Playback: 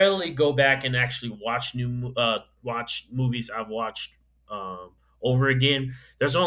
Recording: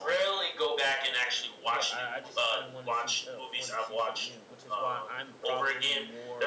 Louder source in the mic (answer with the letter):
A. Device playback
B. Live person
A